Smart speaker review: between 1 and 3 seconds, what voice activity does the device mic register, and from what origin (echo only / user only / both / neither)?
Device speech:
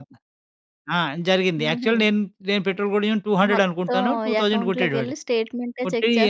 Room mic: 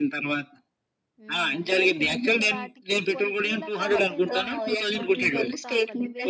both